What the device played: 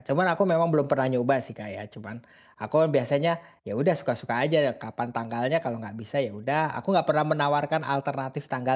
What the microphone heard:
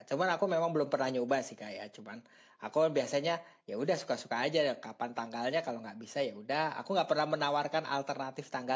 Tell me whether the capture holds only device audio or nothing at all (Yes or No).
Yes